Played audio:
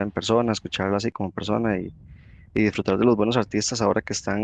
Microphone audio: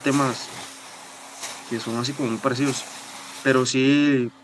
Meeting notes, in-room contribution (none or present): present